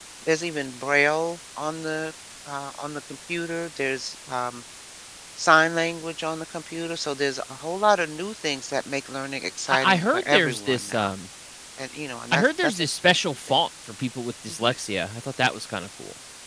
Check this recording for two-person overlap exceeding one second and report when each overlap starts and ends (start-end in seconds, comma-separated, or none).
9.7-11.1